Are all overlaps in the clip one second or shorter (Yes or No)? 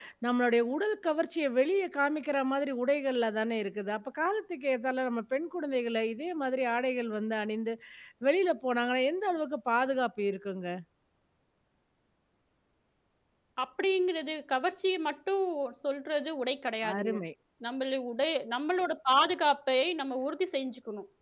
Yes